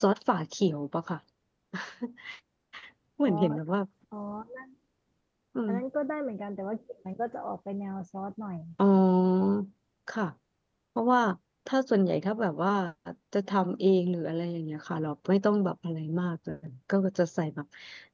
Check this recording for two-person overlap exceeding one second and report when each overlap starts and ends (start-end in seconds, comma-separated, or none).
none